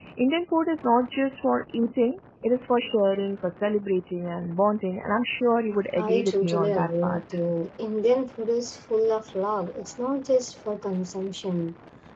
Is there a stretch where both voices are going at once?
Yes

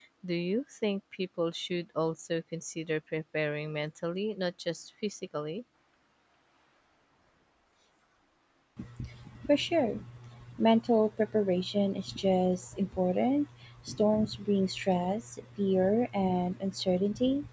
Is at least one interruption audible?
No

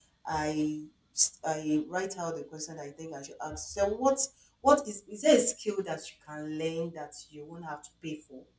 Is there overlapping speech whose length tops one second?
No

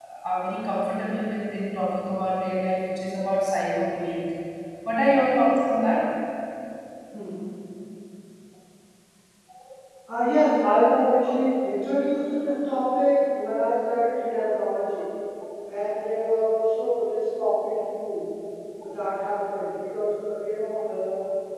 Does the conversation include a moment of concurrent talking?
No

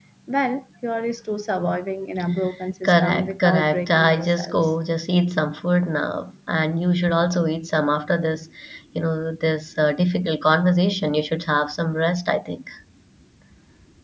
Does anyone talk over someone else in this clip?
Yes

